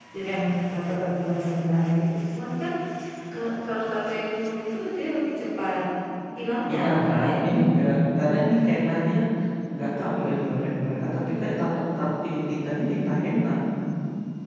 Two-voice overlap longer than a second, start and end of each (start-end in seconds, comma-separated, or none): 6.7-8.0